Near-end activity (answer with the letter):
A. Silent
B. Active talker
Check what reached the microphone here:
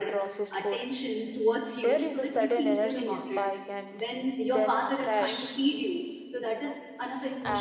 B